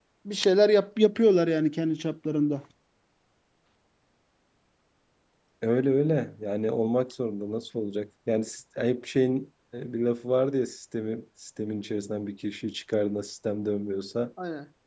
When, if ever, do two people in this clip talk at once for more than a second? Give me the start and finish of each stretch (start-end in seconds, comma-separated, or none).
none